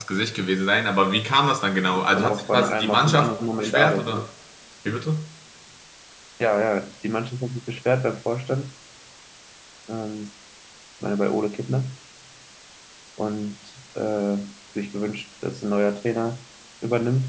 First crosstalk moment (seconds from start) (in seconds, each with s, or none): 2.1 s